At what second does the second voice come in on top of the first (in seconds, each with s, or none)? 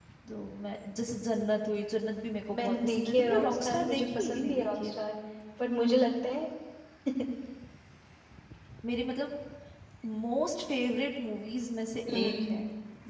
2.5 s